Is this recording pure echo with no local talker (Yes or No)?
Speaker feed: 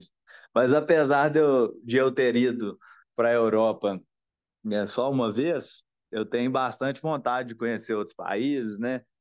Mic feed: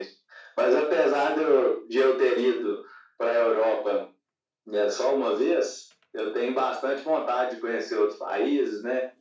Yes